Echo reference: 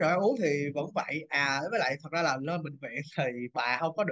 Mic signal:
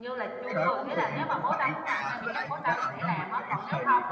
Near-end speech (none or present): present